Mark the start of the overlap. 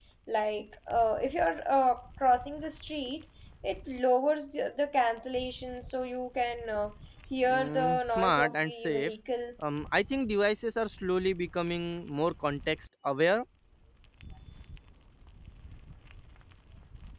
7 s

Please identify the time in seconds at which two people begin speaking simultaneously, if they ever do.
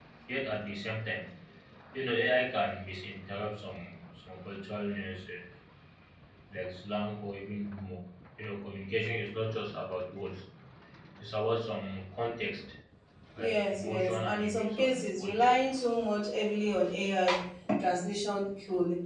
13 s

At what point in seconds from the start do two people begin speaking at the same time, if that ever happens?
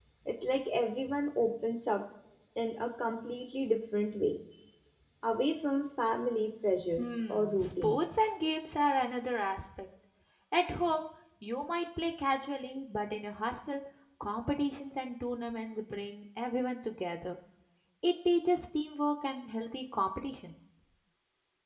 7 s

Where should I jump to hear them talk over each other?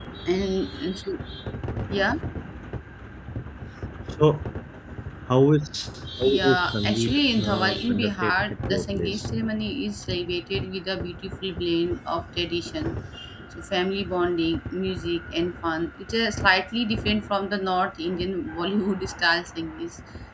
6 s

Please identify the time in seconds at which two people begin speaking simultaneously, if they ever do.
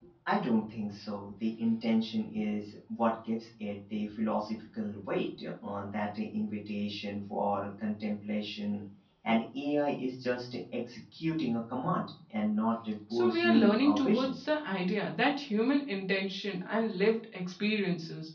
13 s

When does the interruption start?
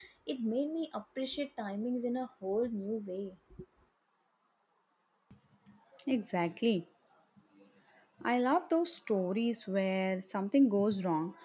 none

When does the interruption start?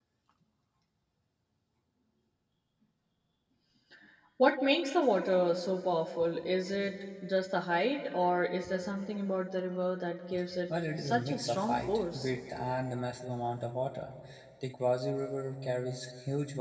11 s

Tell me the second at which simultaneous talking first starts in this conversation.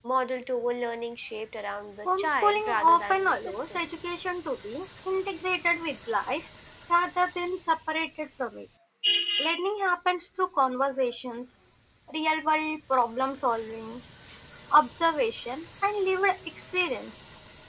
2 s

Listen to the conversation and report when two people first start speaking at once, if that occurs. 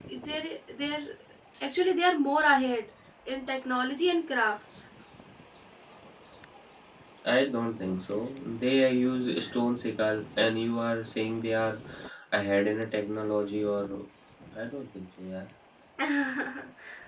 none

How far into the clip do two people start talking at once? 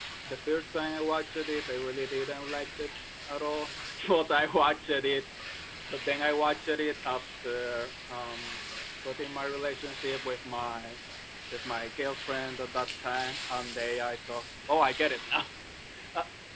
none

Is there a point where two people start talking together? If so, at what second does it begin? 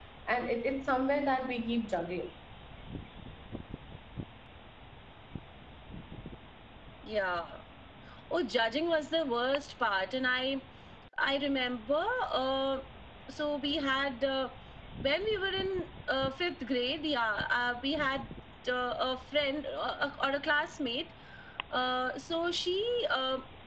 none

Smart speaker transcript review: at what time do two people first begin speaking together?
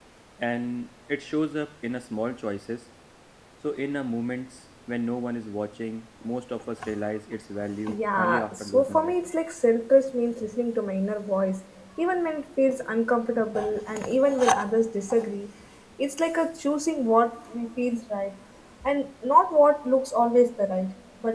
8 s

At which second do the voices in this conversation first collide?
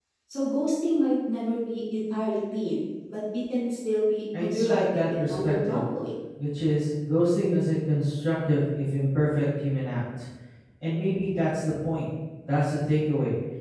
4 s

